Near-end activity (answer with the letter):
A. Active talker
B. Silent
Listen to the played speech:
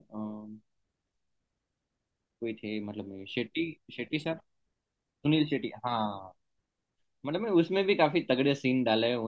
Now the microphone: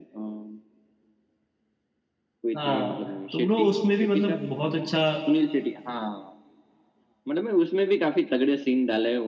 A